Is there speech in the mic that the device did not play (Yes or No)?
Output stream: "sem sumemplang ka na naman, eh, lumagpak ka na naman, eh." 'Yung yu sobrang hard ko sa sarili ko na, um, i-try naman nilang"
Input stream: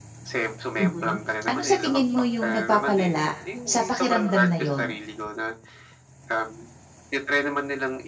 Yes